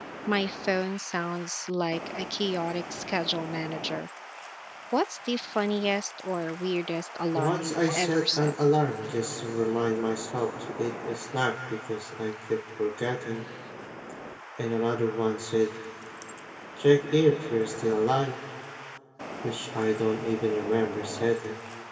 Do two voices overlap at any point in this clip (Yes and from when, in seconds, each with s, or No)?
Yes, from 7.3 s